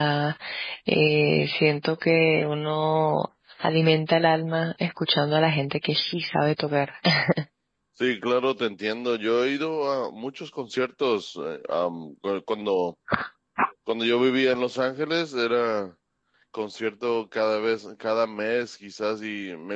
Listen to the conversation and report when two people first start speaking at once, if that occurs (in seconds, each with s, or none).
none